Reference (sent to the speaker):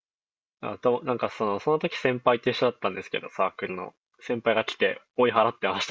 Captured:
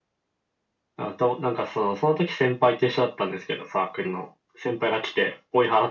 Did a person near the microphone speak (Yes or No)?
No